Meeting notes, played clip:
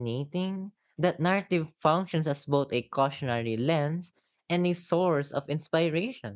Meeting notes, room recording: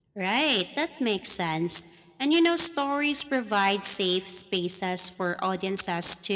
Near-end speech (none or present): present